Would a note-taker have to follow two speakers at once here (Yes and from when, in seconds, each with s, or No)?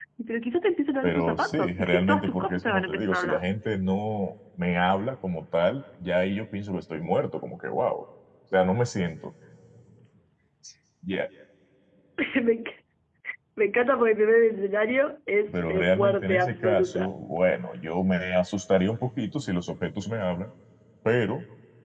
Yes, from 1.0 s